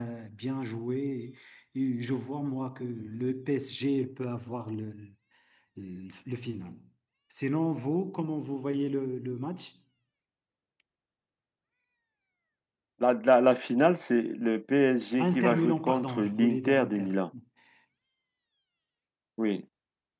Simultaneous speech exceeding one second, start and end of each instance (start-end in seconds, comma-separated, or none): 15.2-17.1